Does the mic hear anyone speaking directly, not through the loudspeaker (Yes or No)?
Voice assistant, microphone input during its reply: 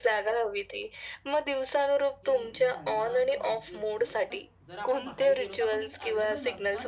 Yes